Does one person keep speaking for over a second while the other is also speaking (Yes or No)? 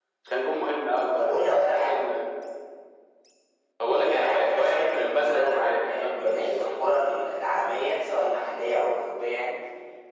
Yes